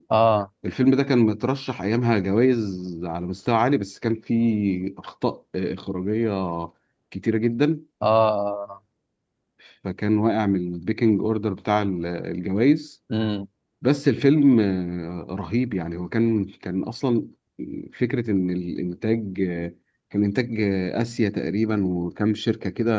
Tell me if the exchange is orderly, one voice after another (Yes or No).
Yes